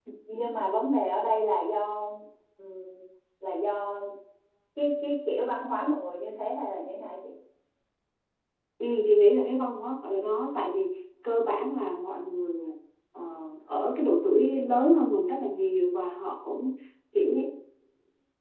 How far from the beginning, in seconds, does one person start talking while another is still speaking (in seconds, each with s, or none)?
none